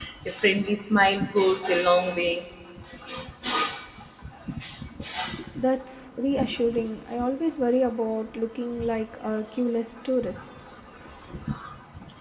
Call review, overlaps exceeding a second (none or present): none